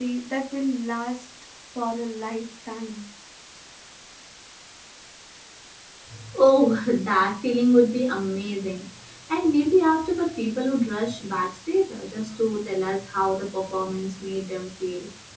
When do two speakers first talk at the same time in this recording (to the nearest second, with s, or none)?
none